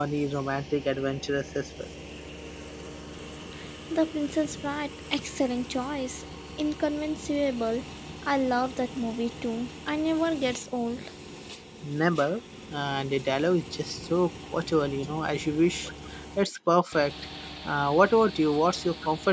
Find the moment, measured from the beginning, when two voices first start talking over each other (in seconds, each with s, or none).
none